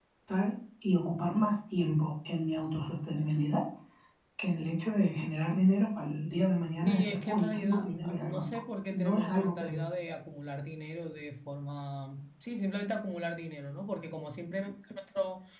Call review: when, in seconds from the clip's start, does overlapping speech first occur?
7 s

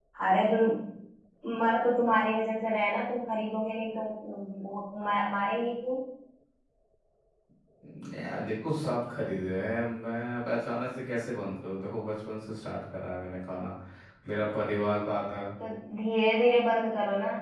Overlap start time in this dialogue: none

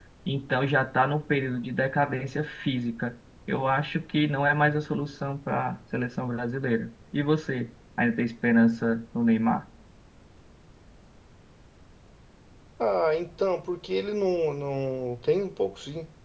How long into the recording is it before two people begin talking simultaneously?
none

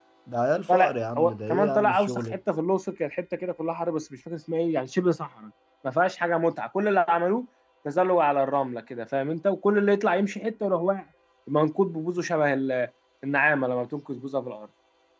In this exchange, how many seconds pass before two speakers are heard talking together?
1 s

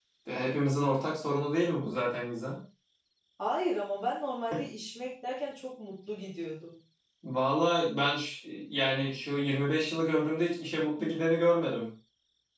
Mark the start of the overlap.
none

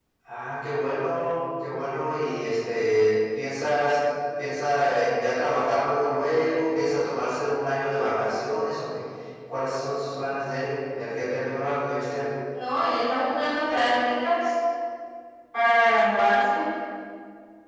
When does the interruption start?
none

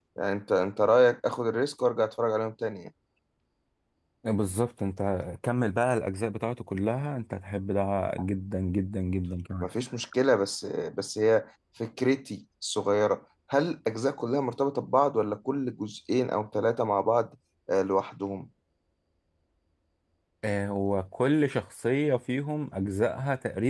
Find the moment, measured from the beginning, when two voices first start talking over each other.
none

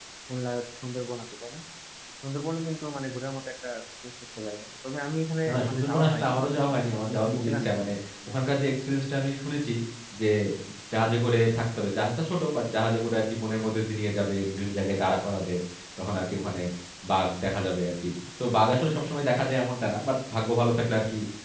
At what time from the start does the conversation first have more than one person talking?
5 s

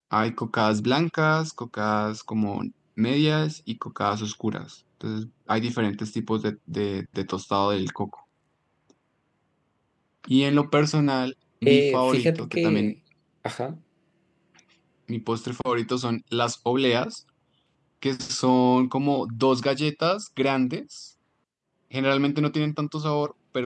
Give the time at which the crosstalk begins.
12 s

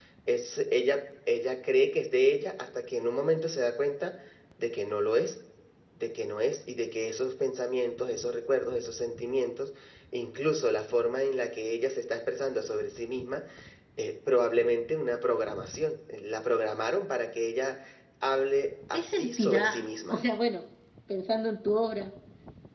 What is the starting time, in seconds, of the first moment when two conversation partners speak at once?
19 s

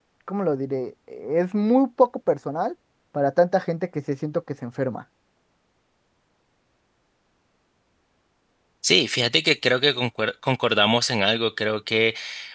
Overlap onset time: none

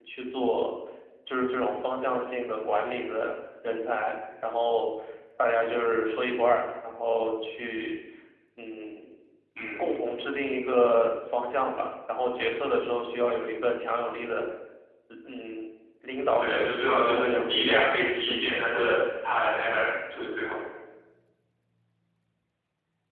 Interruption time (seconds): 16 s

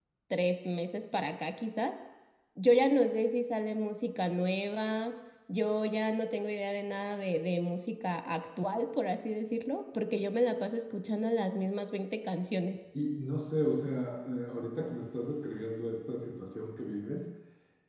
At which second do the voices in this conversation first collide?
none

